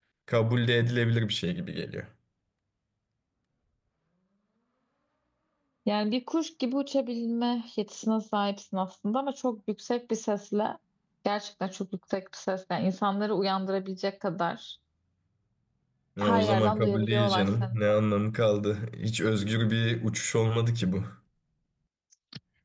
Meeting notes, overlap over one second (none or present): present